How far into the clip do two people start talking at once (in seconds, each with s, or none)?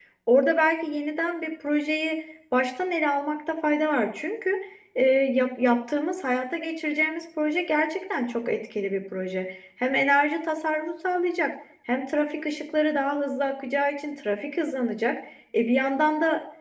none